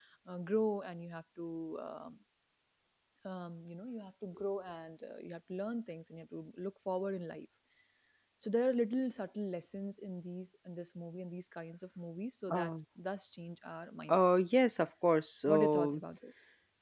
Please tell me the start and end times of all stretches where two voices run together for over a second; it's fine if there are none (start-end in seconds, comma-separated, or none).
none